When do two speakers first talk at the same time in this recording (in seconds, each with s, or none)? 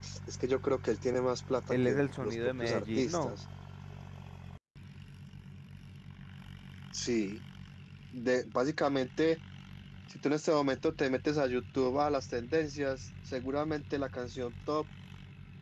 1.7 s